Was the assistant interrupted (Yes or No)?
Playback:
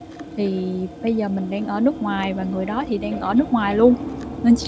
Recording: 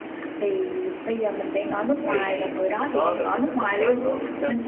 Yes